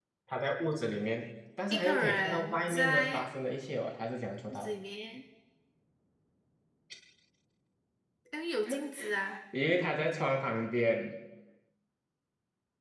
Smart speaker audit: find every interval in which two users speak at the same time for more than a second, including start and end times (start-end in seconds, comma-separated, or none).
1.7-3.2